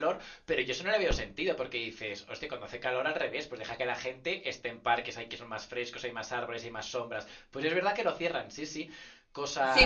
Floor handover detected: Yes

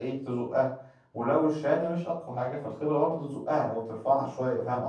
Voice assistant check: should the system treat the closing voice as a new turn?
Yes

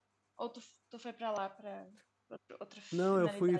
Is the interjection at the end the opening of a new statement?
Yes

